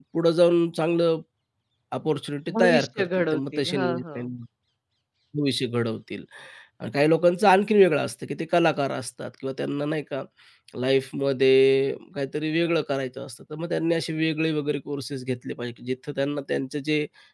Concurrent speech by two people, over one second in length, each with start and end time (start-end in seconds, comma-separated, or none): 2.5-4.3